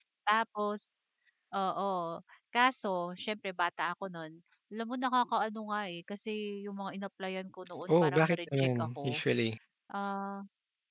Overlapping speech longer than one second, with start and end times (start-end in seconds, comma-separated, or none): 7.9-9.2